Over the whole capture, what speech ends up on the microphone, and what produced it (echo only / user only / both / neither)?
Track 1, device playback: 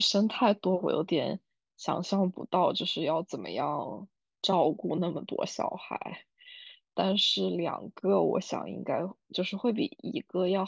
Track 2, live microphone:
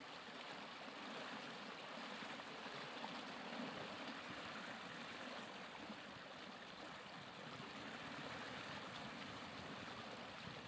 neither